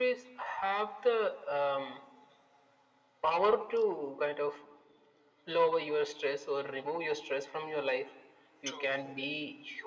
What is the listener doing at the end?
listening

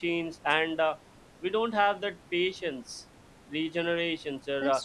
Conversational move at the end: listening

